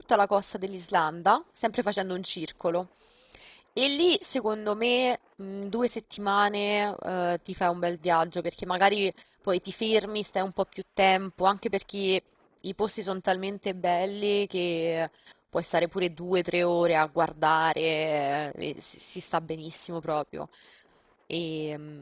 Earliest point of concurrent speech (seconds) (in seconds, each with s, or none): none